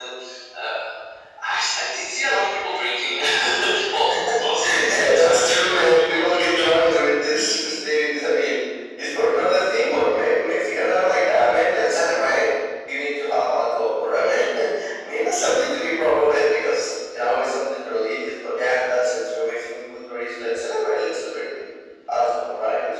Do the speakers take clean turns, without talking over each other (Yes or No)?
No